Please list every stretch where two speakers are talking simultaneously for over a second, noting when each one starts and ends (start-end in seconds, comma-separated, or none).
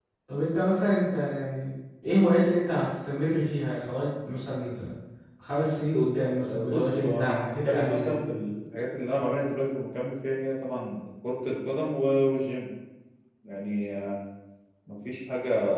6.5-8.2